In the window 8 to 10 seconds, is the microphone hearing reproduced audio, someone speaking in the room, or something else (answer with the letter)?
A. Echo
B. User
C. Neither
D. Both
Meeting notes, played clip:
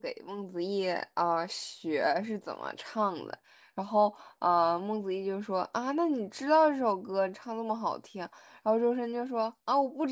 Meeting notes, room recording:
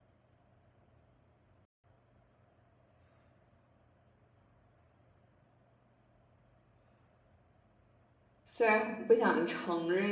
B